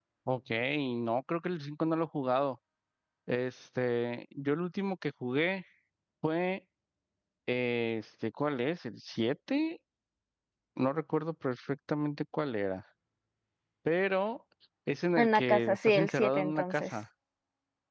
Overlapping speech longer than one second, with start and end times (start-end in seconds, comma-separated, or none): 15.2-16.9